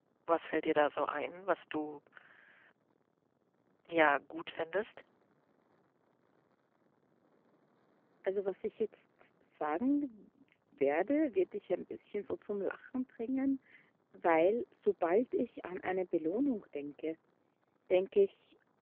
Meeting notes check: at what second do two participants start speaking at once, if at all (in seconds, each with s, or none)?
none